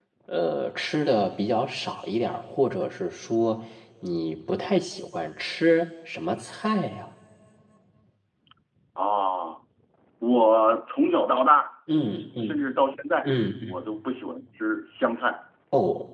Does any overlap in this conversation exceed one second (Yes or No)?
No